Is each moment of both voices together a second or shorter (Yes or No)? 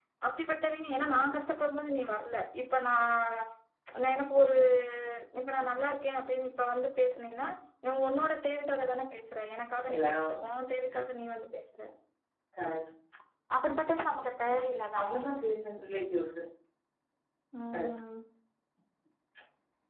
Yes